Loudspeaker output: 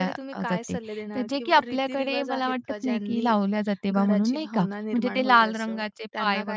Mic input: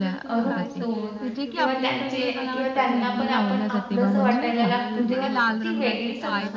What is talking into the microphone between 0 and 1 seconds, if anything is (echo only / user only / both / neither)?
both